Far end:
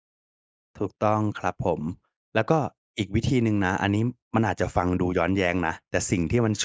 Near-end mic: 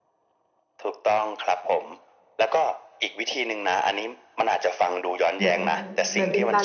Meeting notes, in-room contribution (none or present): present